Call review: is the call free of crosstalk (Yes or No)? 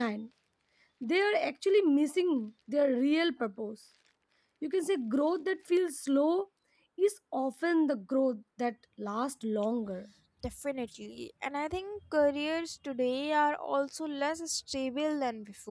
Yes